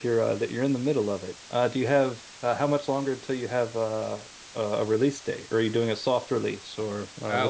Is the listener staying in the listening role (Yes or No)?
No